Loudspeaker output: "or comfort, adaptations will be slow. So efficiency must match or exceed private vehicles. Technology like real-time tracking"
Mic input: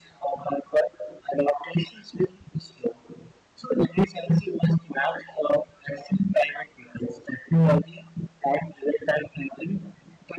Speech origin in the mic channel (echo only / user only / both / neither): echo only